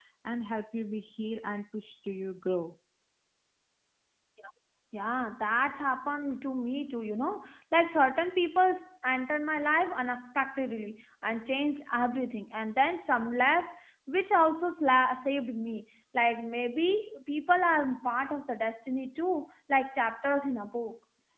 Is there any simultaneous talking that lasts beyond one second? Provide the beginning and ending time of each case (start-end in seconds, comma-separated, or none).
none